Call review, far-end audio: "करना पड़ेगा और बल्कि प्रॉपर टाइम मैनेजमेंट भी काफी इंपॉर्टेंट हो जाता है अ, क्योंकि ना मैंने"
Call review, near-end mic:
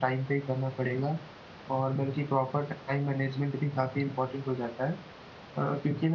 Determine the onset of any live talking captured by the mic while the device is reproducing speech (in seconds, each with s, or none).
none